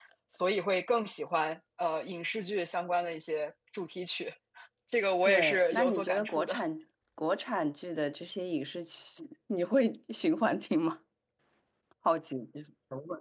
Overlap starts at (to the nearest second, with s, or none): 5 s